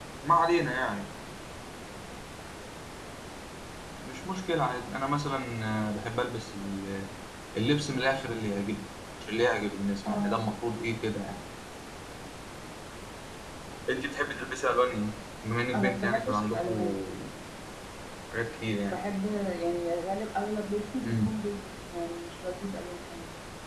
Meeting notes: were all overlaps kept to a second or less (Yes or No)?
No